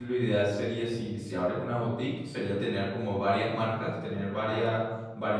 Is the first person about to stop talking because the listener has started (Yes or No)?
No